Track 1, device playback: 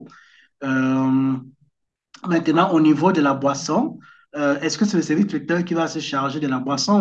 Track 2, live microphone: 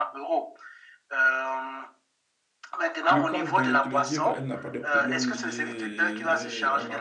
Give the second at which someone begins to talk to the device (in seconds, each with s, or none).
3.1 s